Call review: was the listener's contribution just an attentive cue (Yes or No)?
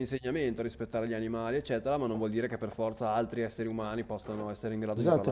No